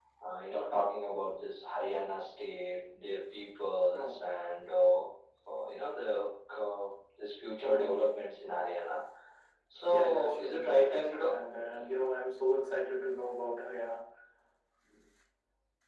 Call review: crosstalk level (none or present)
present